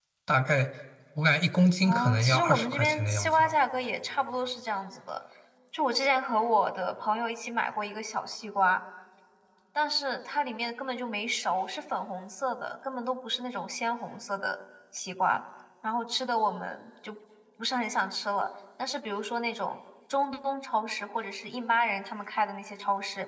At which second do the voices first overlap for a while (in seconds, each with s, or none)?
1.8 s